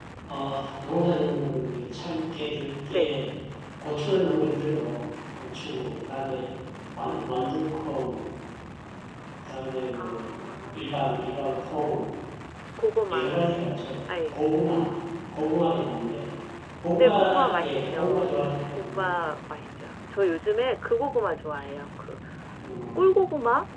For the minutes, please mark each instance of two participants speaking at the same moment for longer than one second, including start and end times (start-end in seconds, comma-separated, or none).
17.0-18.3